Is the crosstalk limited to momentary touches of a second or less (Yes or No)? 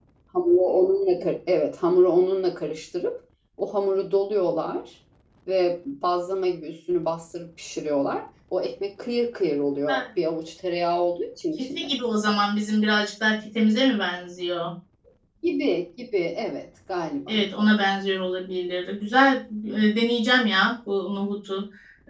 Yes